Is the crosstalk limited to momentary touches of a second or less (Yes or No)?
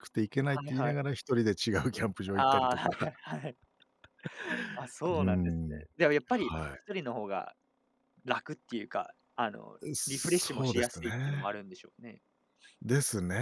No